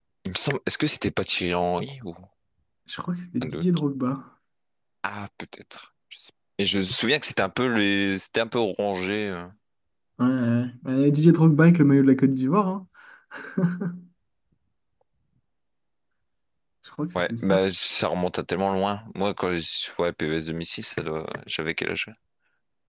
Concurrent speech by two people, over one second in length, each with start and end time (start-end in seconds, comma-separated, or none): none